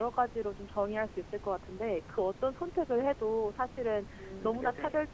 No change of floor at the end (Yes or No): Yes